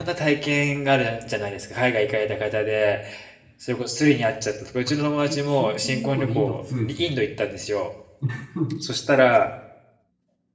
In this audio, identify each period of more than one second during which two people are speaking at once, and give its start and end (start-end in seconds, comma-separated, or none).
5.2-7.1